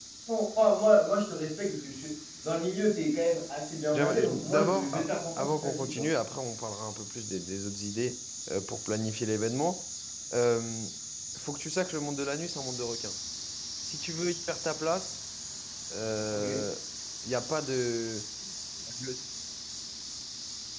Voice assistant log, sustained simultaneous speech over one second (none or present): present